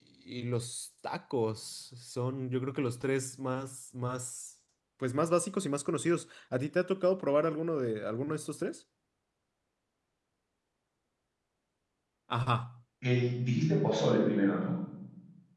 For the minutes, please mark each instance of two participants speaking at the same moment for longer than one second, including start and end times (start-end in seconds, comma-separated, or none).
none